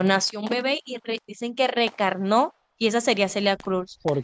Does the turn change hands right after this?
No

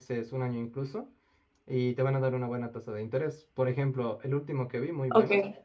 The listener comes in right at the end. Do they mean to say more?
No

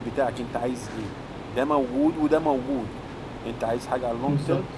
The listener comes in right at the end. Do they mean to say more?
No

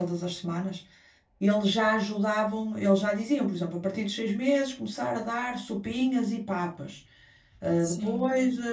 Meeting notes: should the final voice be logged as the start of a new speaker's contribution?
No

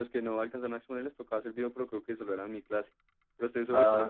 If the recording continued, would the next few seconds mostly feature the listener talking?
Yes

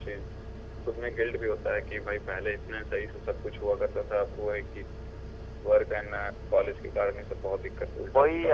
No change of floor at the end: No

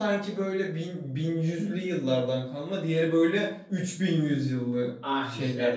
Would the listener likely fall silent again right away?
No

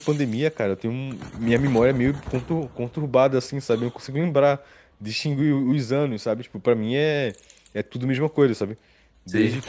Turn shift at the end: No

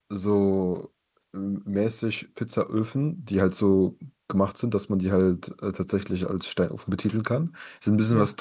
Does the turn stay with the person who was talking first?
Yes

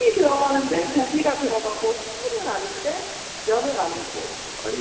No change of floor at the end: Yes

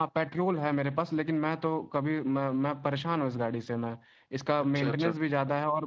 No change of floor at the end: Yes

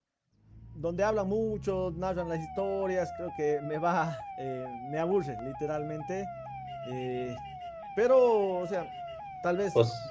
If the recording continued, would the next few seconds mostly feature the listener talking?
No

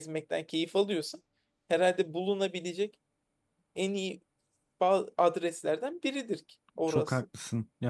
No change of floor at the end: No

